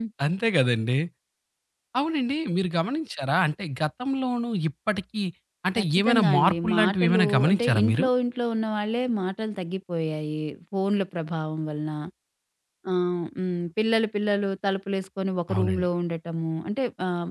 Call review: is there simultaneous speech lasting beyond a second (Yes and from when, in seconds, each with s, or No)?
Yes, from 5.8 s